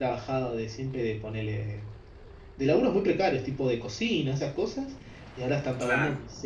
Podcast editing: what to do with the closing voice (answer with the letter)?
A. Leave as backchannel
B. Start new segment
A